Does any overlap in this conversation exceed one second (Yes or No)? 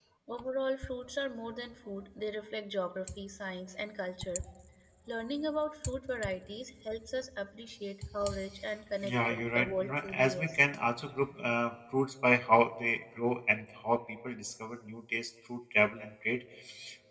Yes